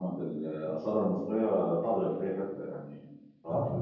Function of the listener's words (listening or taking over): listening